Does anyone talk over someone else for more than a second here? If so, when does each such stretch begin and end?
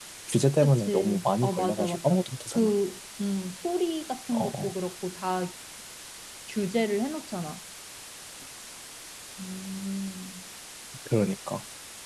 0.6-2.0

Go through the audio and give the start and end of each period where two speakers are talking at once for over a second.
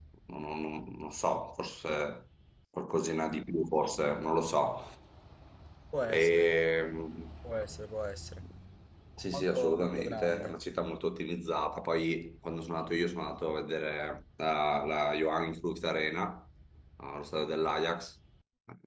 9.3-10.5

